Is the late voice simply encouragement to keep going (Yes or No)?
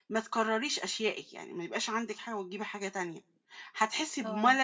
Yes